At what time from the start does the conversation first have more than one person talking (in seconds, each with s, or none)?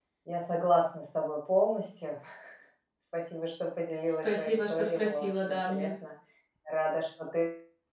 4.2 s